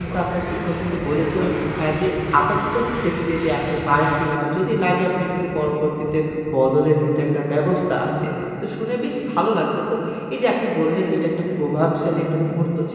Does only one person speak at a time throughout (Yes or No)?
No